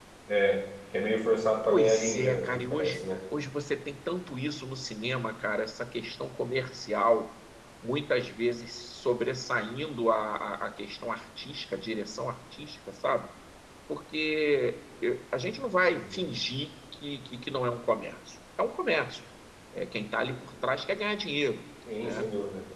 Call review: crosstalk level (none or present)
present